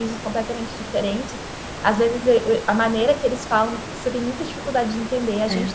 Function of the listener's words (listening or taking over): listening